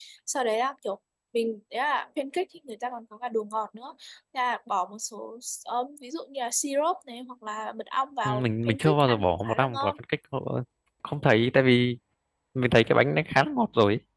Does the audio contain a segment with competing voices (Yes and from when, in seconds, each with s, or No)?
Yes, from 8.2 s